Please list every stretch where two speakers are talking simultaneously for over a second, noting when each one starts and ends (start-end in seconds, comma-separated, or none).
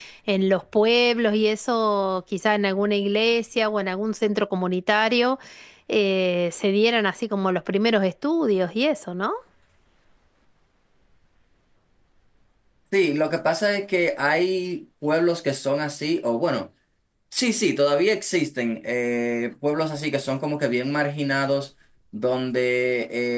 none